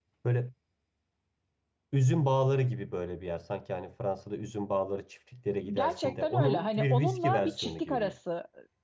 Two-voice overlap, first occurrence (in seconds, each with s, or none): 5.6 s